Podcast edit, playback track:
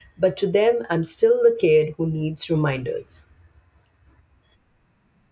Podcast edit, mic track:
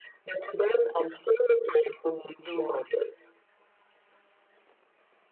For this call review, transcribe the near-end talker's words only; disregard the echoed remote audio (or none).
to